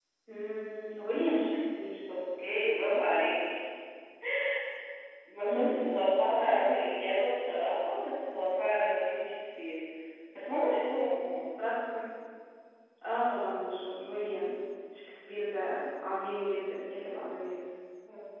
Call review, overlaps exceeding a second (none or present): none